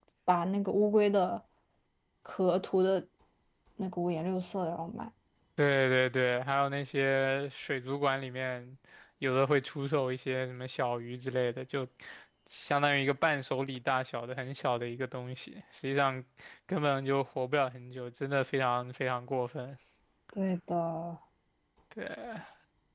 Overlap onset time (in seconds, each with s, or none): none